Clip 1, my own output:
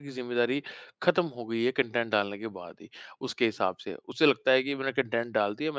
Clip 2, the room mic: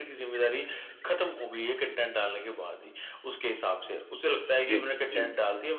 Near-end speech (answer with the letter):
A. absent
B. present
B